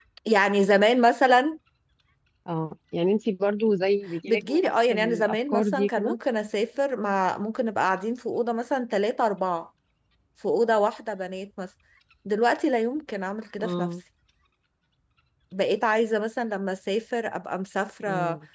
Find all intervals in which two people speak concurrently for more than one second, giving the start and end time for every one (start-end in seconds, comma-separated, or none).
4.3-6.2